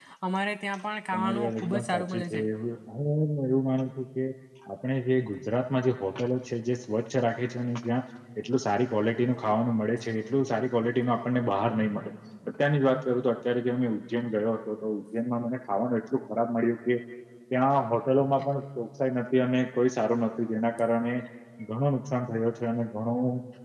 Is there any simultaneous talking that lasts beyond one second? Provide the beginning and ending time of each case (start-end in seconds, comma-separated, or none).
1.1-2.4